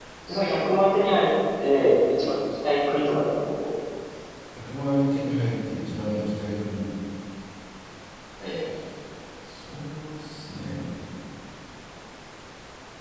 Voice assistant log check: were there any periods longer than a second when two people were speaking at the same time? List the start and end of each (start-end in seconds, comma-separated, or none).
none